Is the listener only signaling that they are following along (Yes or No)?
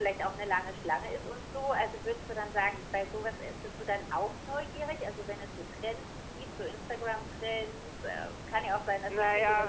No